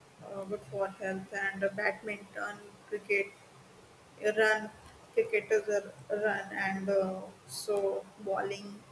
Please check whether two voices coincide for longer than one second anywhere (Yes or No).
No